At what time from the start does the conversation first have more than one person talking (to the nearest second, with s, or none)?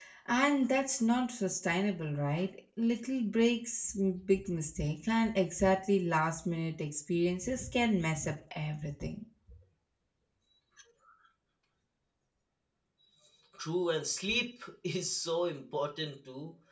none